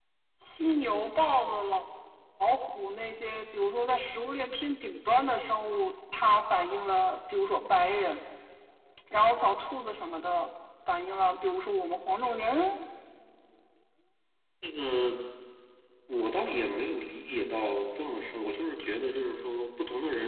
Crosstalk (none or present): none